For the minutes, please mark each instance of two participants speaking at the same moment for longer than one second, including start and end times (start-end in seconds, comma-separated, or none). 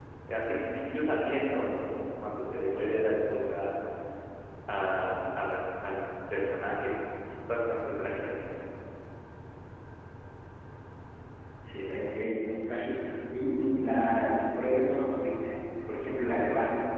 none